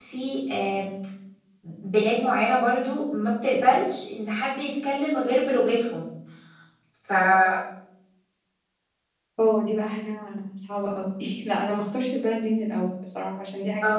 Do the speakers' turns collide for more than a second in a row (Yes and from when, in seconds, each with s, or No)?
No